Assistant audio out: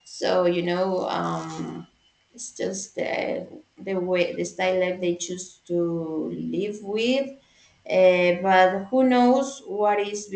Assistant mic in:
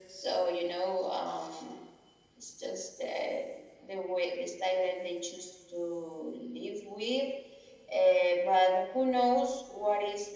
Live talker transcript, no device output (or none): none